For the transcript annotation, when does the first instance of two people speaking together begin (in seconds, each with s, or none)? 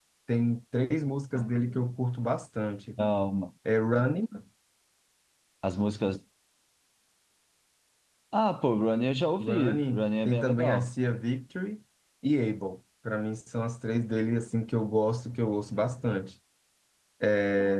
9.4 s